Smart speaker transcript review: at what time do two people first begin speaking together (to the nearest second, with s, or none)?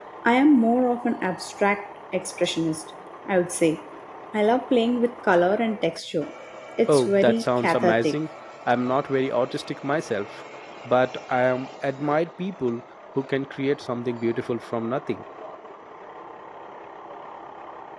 7 s